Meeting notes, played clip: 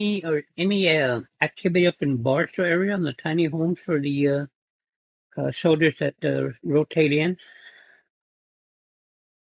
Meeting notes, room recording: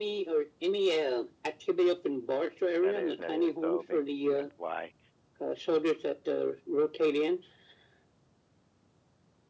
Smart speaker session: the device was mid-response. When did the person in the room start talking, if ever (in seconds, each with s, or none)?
2.8 s